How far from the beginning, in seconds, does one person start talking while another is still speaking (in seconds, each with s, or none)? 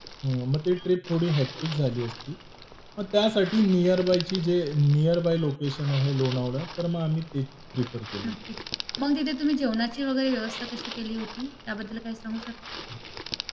none